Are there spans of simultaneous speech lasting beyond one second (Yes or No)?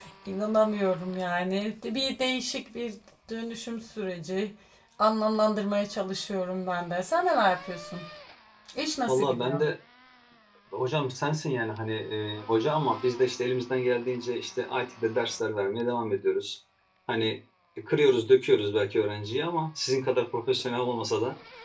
No